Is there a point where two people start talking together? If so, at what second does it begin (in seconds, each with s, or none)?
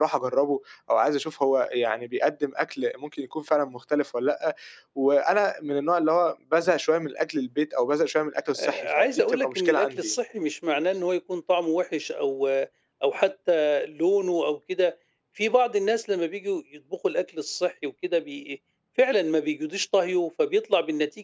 8.6 s